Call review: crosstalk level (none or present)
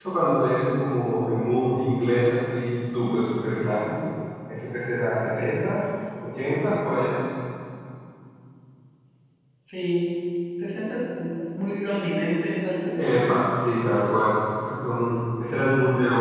none